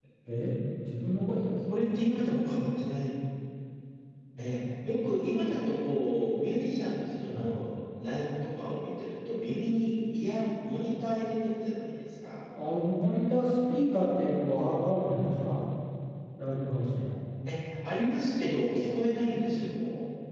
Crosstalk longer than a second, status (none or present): none